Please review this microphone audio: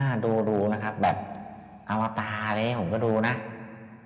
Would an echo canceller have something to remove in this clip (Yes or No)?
Yes